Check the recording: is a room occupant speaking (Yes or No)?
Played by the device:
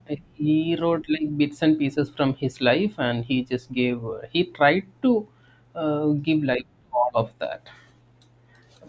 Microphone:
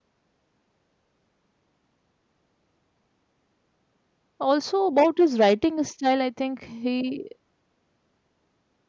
Yes